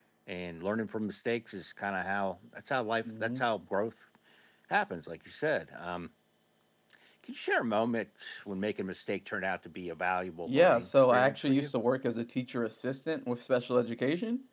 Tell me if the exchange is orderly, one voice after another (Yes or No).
No